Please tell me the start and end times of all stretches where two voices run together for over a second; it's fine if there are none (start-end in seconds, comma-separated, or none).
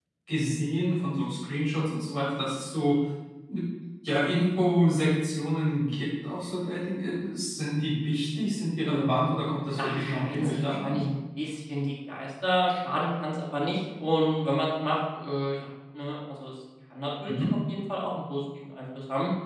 9.8-11.0